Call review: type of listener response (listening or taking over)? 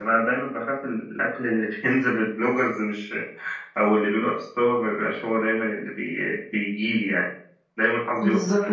taking over